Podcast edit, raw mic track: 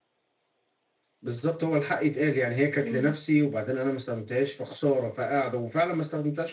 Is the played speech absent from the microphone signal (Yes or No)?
No